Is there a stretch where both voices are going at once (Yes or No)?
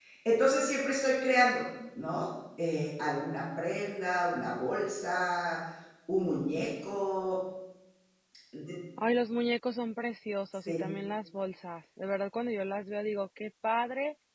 No